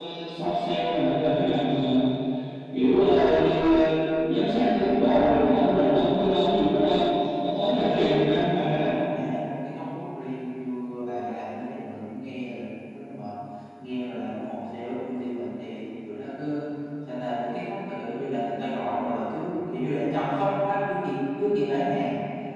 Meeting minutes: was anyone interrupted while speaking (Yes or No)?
Yes